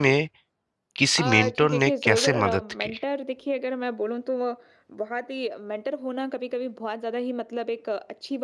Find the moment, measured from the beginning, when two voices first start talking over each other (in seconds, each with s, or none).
1.2 s